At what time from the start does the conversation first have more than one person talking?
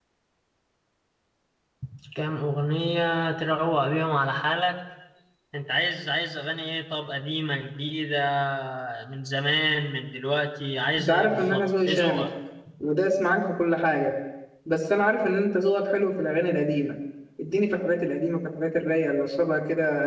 11 s

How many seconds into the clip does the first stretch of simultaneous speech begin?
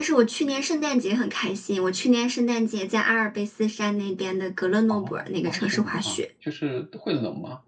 5 s

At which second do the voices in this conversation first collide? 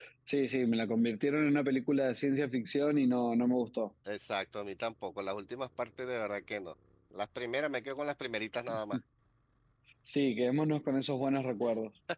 none

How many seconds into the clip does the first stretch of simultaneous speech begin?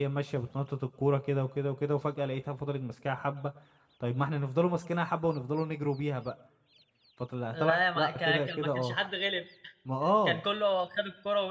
8 s

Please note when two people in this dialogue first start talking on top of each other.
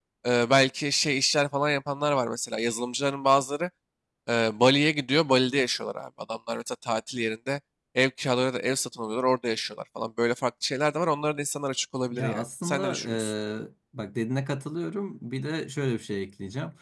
12 s

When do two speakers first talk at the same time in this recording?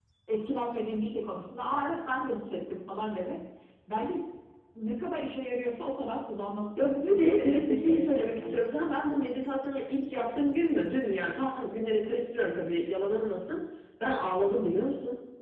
7 s

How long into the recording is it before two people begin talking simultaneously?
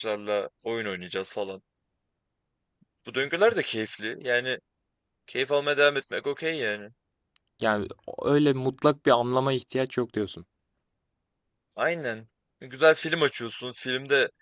none

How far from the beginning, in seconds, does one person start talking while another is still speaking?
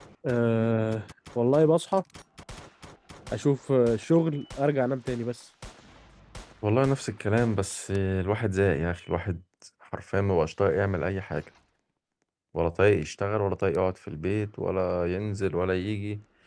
none

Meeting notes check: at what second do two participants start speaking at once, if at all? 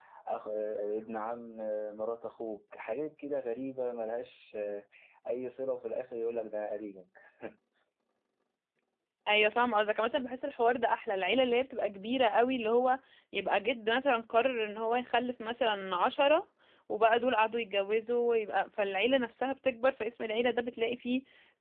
none

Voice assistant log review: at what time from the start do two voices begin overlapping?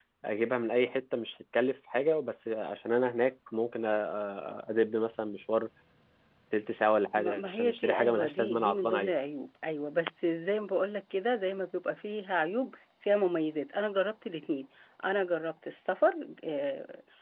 7 s

